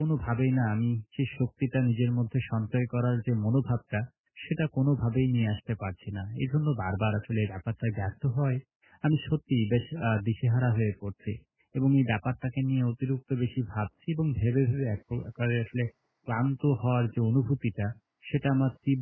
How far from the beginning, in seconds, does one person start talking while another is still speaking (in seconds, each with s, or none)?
none